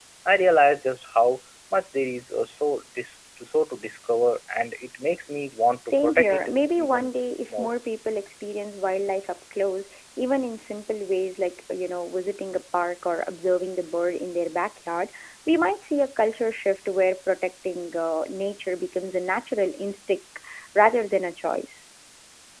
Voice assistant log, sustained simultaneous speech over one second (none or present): present